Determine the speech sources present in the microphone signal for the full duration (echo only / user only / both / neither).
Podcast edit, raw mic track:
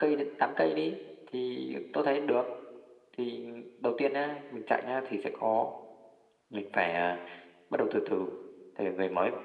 echo only